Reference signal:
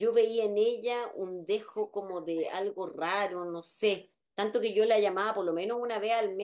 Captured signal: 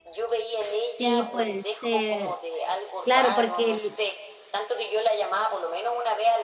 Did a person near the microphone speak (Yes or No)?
Yes